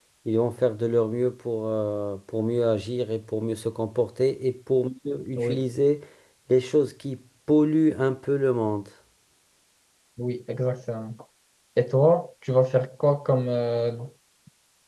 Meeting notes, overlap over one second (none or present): none